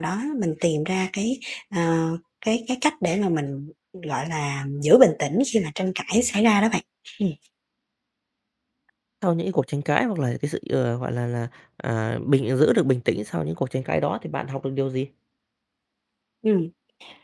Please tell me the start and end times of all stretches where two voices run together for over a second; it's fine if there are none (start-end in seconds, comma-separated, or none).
none